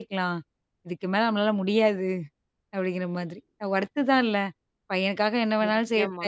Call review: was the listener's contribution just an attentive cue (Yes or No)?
Yes